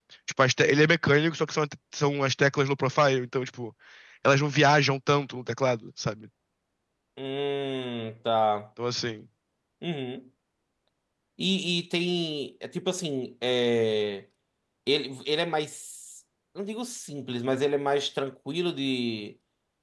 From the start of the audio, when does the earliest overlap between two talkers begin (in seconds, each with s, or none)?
none